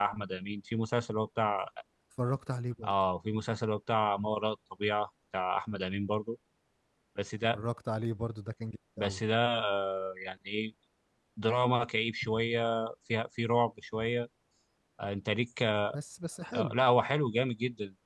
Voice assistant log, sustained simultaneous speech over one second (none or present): none